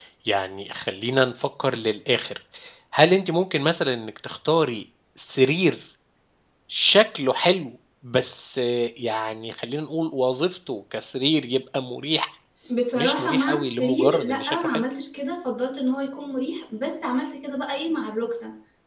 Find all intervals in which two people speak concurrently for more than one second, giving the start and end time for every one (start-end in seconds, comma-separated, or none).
13.0-14.8